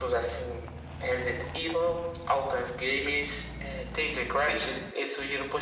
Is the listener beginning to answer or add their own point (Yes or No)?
No